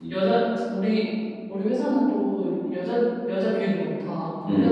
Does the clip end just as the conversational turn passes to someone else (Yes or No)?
No